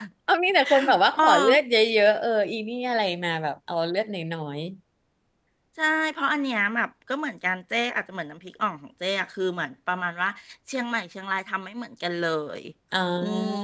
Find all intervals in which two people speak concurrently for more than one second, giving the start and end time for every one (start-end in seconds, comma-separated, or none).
none